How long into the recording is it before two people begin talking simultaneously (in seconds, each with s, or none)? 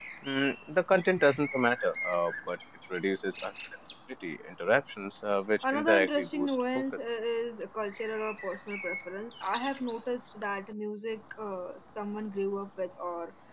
5.6 s